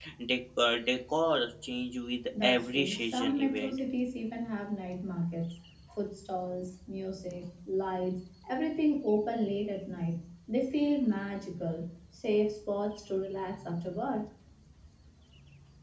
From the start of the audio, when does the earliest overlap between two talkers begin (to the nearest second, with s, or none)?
2 s